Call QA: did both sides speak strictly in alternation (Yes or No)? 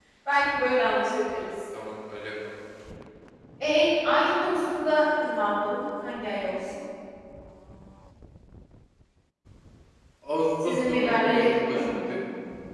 No